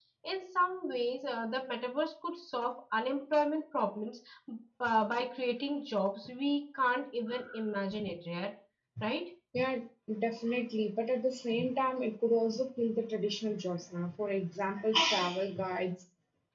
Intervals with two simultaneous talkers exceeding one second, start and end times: none

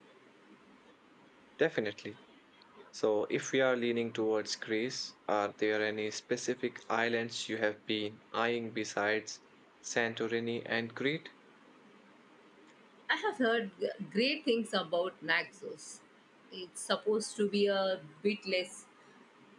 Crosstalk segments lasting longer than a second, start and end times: none

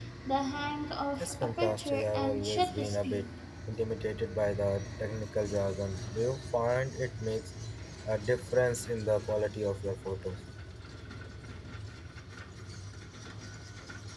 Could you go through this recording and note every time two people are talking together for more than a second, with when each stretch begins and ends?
1.2-3.3

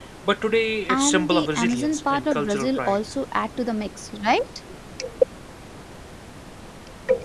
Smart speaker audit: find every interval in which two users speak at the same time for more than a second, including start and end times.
0.9-3.0

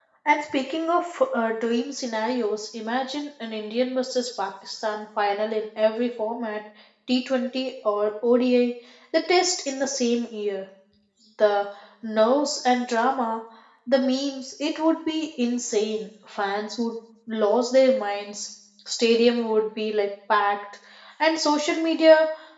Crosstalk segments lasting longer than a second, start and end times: none

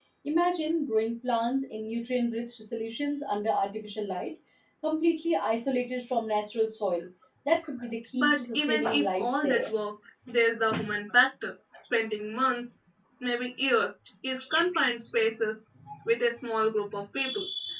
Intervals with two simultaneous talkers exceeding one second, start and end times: 8.1-9.7

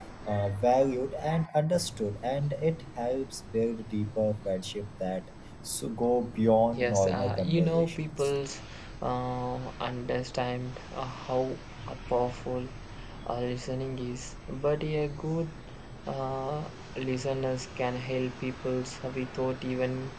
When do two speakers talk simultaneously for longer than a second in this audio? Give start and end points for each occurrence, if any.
6.8-8.3

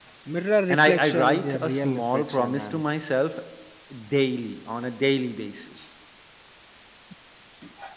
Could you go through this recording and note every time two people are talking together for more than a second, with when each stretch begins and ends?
0.7-2.8

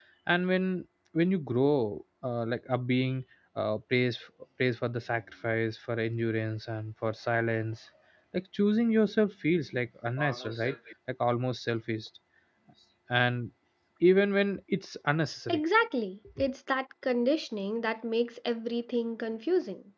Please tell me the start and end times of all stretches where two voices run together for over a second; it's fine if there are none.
none

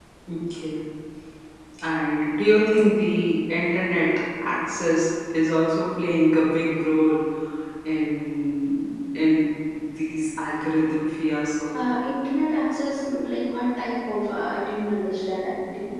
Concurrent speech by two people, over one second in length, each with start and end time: none

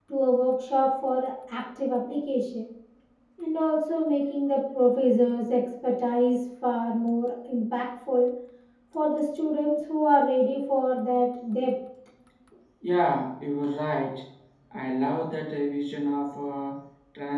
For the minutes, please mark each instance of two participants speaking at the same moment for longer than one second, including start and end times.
none

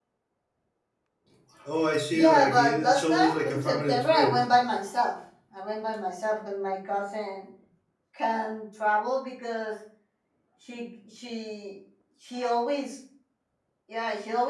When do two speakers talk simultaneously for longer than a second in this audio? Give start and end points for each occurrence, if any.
2.1-4.4

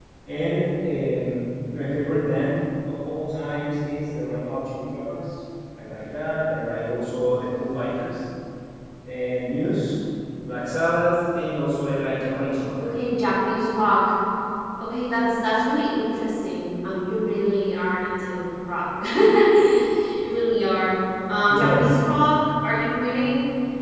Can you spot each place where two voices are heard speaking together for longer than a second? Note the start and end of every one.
none

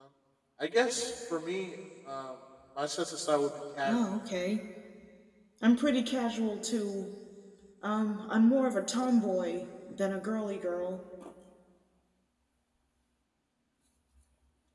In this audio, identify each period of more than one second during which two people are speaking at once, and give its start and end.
none

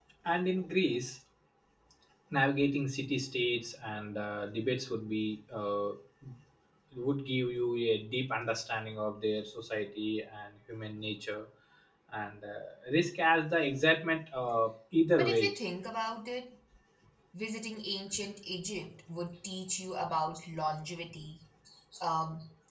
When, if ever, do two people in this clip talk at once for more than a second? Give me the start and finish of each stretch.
none

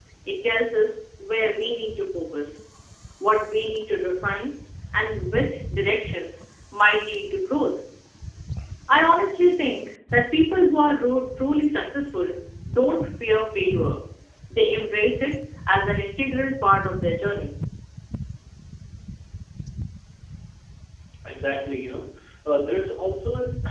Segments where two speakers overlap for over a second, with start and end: none

